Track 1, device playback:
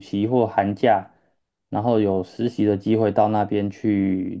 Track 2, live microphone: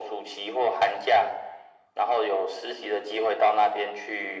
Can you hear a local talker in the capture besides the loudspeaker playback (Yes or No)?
No